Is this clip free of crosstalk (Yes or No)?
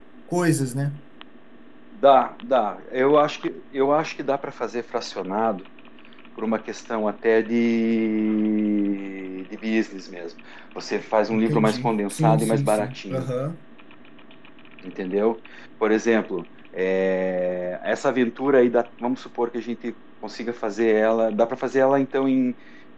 No